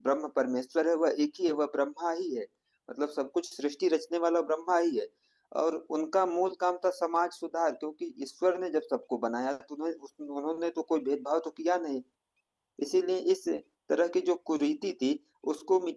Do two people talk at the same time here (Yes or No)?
No